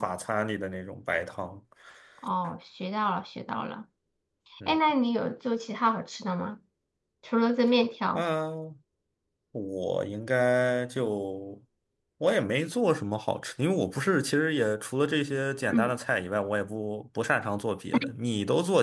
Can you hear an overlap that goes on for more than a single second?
No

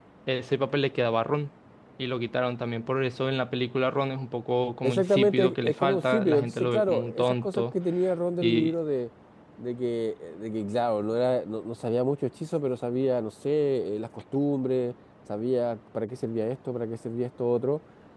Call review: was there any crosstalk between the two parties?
Yes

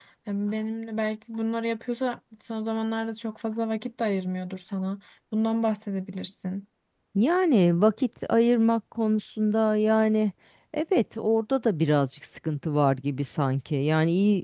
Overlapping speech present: No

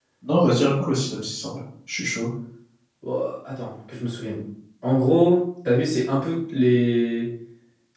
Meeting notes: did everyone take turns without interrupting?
Yes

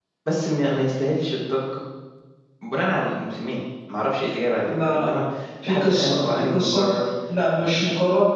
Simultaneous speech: Yes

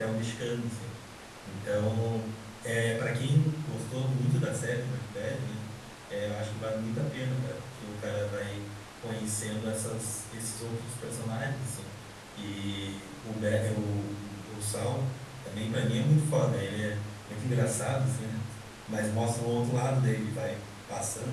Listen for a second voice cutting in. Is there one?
No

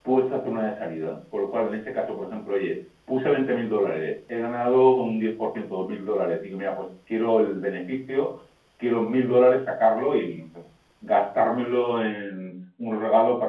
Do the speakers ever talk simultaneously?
No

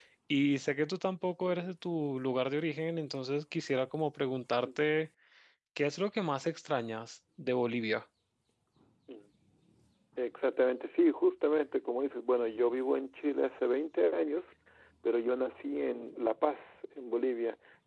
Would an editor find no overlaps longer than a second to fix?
Yes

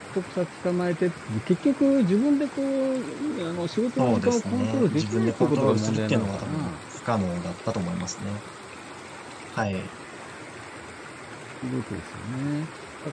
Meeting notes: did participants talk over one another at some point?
Yes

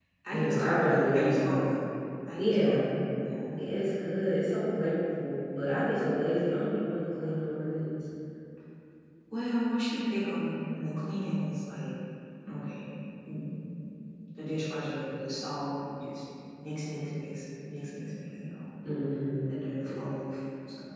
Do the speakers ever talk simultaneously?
Yes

